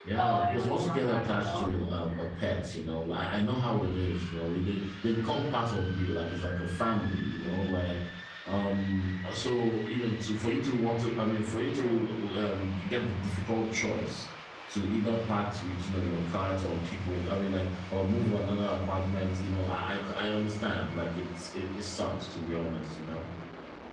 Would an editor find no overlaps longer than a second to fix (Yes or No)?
No